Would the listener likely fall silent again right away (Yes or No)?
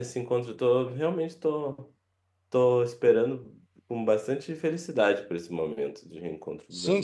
No